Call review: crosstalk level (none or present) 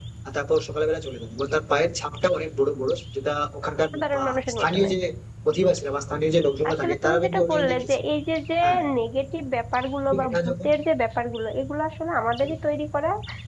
present